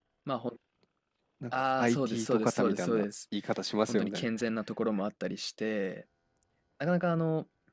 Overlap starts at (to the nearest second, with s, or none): 2 s